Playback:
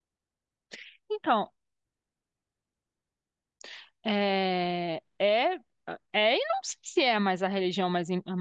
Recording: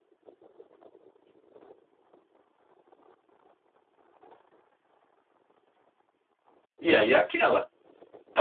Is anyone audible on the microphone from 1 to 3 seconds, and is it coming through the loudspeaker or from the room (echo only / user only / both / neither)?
neither